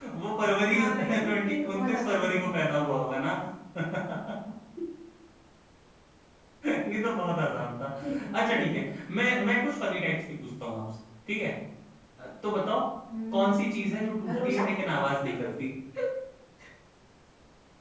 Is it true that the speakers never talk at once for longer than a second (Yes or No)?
No